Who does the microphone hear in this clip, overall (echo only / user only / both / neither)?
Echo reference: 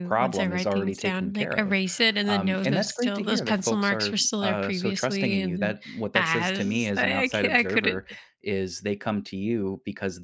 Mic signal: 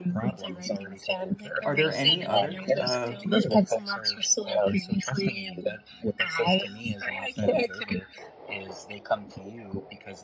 both